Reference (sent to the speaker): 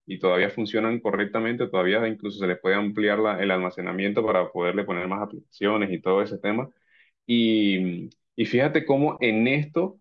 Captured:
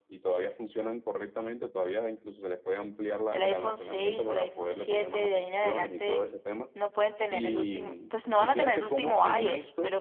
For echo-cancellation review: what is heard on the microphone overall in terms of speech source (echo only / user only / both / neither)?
both